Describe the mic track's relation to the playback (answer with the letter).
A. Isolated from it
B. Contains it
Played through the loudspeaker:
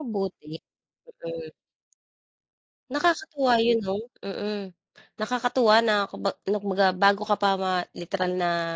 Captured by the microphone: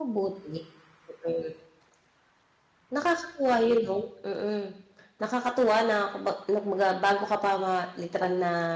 B